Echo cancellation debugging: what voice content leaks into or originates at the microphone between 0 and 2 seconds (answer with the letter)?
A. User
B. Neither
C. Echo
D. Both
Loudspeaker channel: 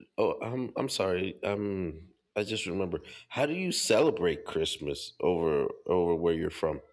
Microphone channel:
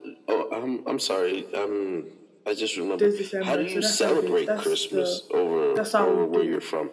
C